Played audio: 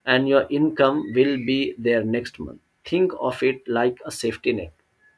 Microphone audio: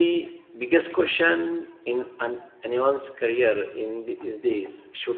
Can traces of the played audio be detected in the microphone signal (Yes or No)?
No